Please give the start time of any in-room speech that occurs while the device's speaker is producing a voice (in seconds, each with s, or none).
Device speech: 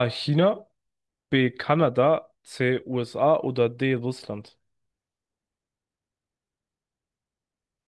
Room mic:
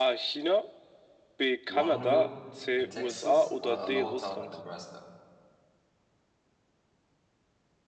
1.7 s